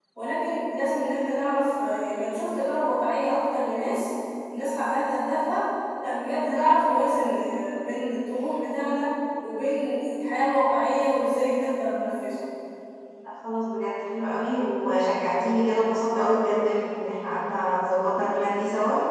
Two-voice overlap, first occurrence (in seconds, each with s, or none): none